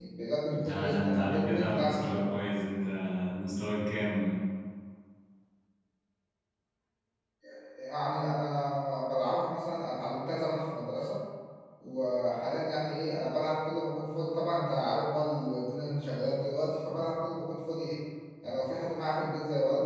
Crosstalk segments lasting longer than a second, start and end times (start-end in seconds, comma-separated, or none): 0.5-2.4